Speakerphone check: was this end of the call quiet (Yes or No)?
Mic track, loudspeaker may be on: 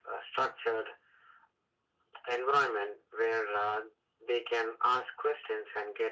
Yes